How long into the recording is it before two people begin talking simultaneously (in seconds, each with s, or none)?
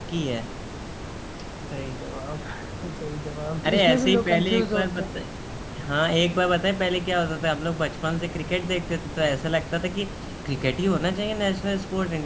3.6 s